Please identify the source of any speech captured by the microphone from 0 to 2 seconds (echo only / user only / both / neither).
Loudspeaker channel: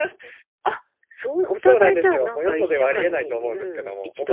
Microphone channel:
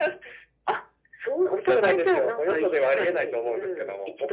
echo only